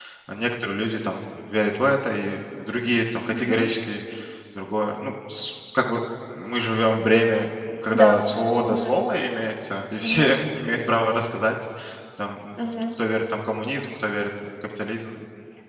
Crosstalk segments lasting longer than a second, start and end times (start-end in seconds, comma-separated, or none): none